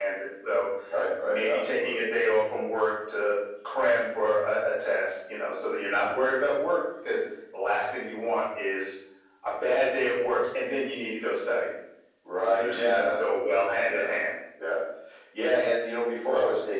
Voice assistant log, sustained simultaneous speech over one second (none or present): present